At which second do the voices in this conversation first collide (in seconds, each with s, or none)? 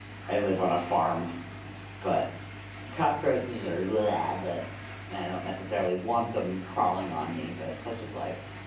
none